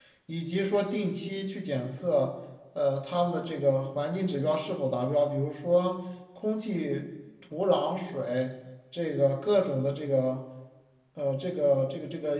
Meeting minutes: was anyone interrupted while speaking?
No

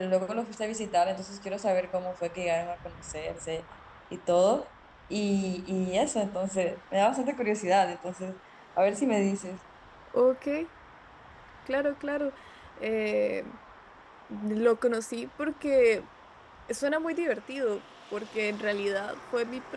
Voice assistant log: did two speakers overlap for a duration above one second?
No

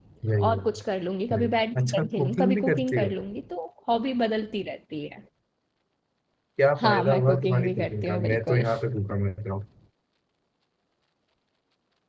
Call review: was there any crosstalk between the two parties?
Yes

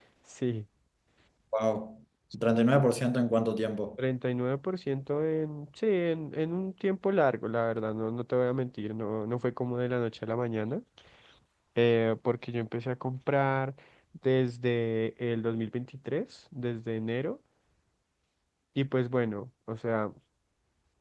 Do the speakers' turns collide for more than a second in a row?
No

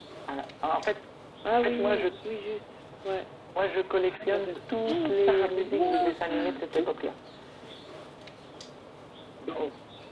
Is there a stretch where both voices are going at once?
Yes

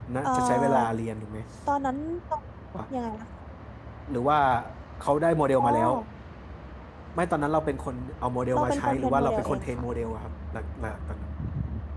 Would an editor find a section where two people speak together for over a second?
Yes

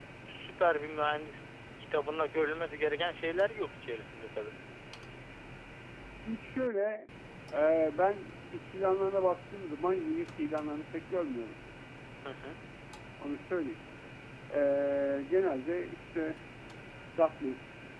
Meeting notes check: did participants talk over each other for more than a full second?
No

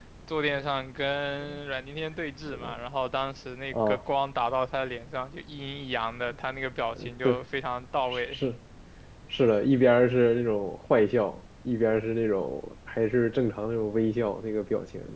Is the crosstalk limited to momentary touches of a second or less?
Yes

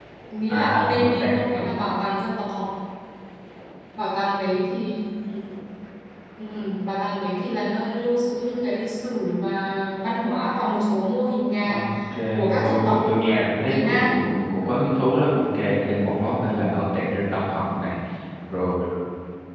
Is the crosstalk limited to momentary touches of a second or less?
No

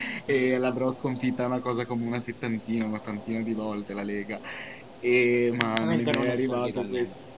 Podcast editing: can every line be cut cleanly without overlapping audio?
No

